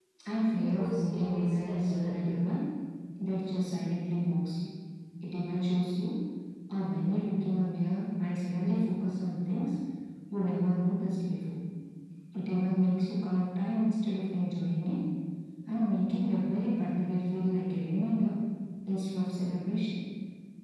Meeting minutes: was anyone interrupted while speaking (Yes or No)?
Yes